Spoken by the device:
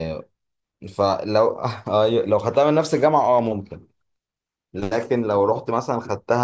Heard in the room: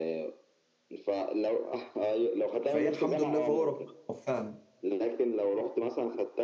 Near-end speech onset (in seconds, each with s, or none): 2.6 s